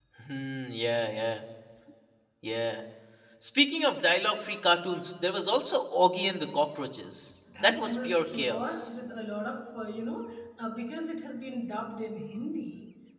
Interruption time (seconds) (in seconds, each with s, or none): 7.5 s